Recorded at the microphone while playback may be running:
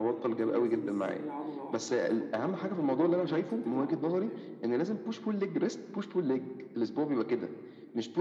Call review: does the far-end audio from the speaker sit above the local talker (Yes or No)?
Yes